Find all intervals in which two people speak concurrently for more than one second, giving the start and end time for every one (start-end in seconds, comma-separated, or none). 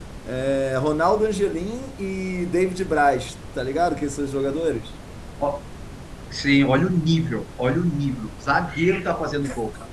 none